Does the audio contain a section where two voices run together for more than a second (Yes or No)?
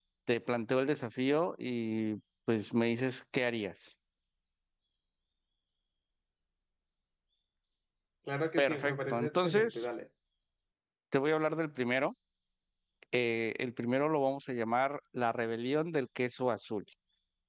Yes